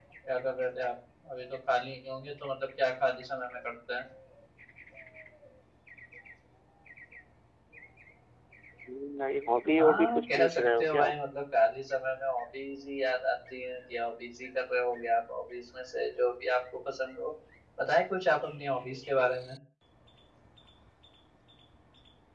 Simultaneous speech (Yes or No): Yes